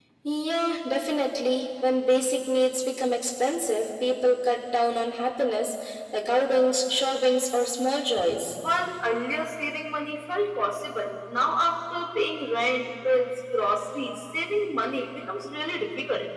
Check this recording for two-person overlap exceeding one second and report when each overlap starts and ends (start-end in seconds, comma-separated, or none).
none